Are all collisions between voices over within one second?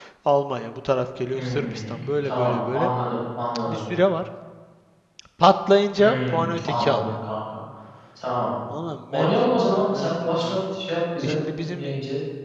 No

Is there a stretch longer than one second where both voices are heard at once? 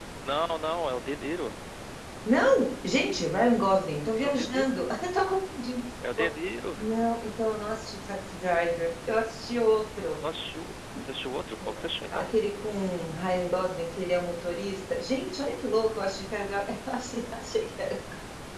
No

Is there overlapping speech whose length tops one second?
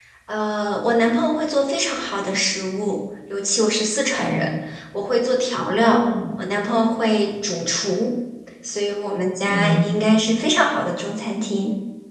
No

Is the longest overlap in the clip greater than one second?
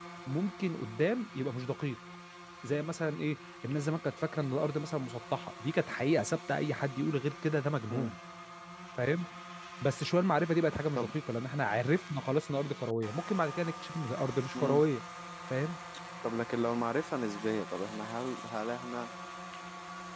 No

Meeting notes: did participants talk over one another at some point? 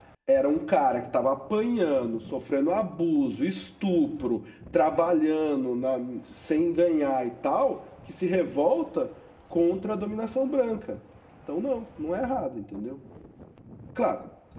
No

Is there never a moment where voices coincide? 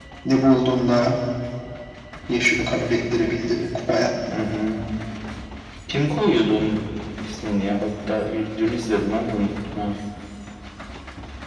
Yes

